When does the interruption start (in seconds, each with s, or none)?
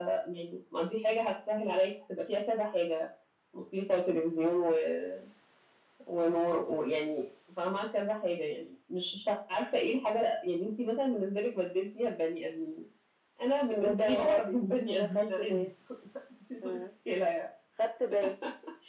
13.8 s